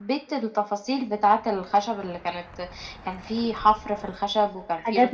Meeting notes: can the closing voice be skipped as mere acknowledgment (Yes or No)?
No